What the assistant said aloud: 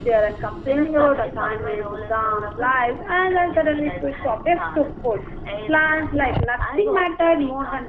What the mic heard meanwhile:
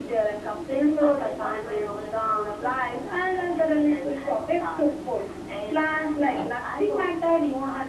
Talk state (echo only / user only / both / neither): echo only